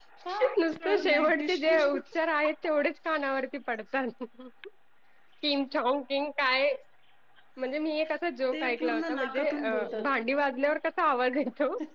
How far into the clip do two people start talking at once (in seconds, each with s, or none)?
0.6 s